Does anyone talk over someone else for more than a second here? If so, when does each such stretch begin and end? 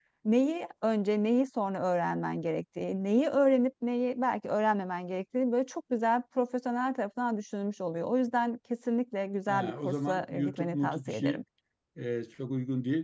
9.5-11.4

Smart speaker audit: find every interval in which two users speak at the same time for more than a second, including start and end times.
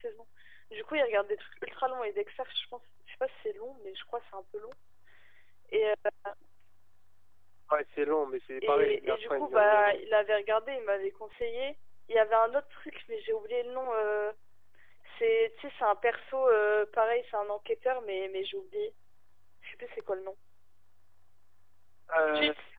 8.6-10.0

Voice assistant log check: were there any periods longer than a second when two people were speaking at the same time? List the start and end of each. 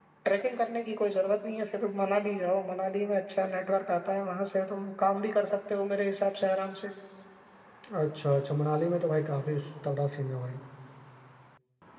none

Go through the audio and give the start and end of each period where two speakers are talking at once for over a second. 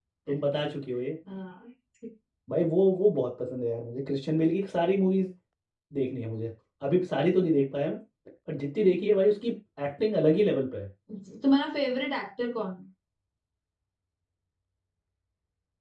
none

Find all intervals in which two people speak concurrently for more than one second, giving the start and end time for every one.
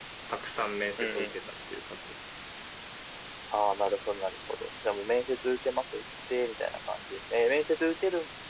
none

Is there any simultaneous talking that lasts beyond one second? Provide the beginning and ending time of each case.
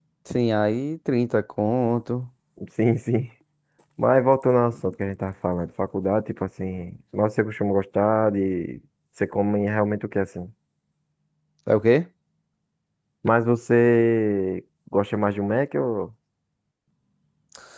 none

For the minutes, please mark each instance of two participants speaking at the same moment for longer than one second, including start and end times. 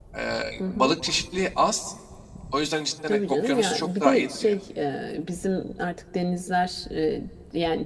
3.0-4.6

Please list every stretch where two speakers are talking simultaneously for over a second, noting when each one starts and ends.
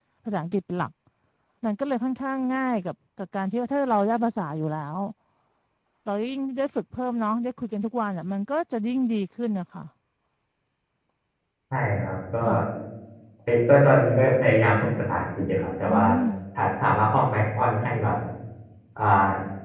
none

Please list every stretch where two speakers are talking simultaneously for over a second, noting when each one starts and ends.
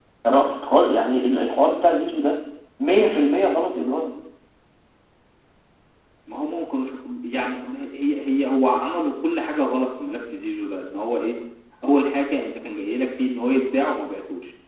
none

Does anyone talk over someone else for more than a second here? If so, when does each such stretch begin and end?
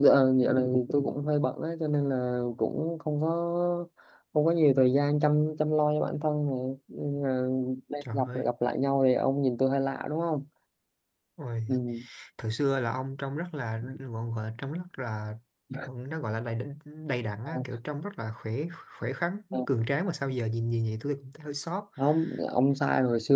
none

